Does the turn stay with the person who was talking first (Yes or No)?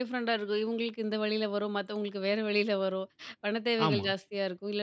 Yes